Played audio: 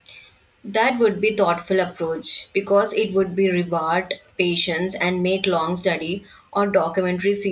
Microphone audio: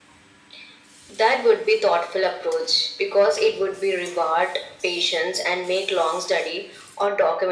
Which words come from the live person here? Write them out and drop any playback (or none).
none